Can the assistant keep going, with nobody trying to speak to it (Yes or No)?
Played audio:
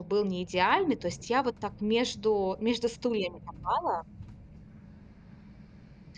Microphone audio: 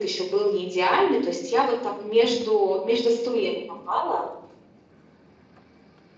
Yes